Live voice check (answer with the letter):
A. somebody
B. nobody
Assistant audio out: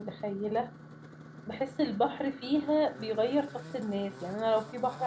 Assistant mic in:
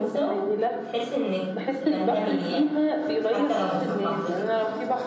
A